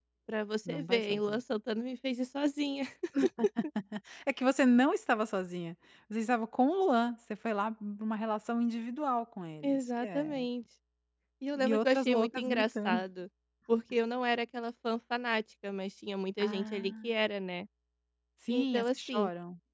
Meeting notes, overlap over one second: present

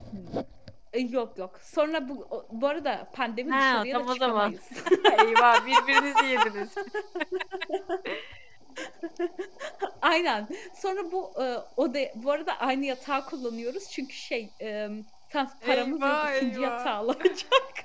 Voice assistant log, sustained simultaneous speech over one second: present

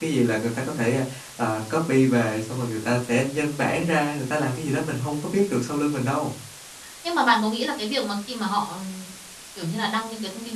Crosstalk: none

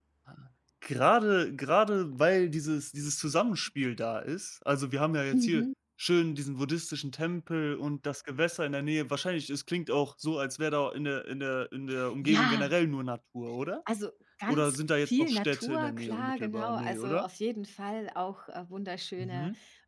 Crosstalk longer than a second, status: present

